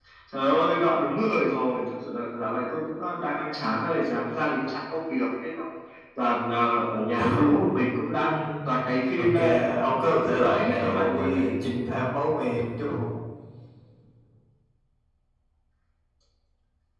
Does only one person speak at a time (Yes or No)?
No